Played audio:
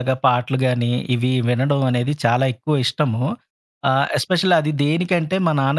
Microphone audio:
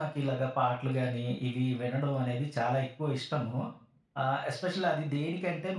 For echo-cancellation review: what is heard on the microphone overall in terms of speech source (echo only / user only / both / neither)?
echo only